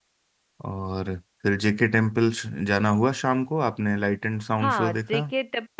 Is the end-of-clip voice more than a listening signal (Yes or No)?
Yes